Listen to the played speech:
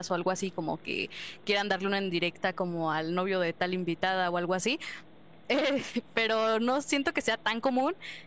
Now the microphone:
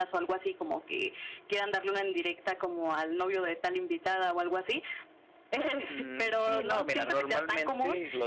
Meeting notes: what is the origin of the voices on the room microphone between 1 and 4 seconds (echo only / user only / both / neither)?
echo only